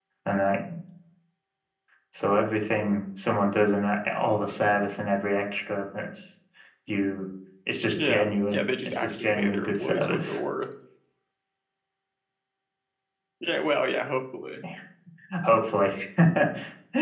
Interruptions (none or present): present